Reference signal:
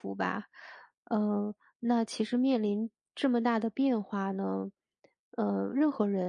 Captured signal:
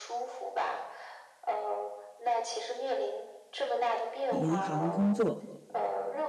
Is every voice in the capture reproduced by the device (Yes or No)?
No